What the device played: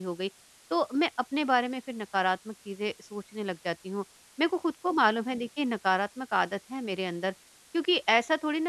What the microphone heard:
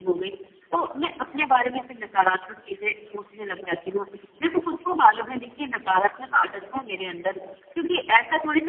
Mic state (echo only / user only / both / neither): echo only